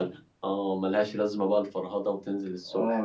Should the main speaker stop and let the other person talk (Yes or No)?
Yes